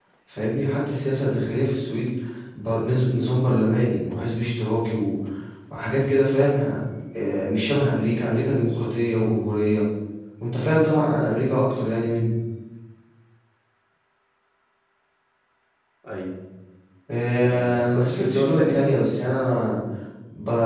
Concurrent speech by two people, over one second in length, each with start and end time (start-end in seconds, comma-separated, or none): 17.4-18.8